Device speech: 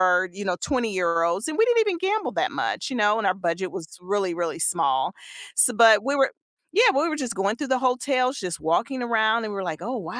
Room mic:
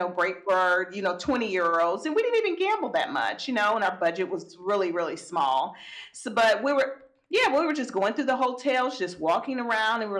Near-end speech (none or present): none